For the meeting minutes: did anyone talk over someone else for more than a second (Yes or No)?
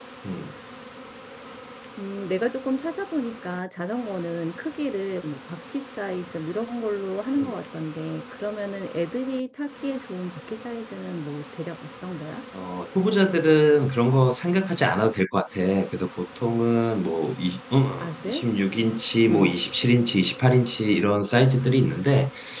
No